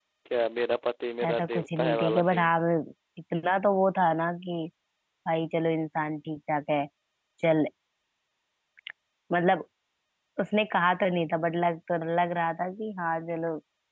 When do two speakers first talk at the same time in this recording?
1.3 s

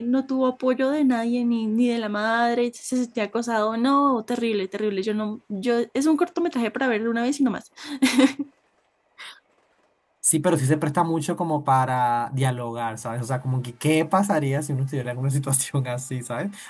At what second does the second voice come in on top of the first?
none

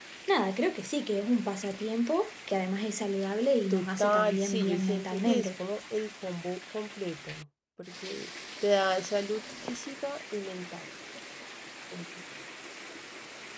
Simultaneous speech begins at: 3.7 s

